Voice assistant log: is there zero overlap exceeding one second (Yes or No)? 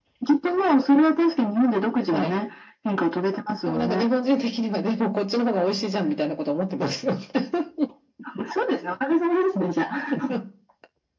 Yes